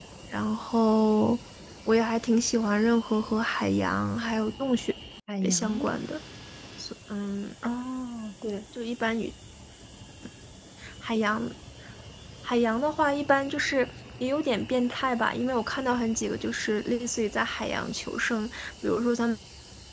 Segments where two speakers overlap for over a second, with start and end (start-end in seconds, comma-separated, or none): none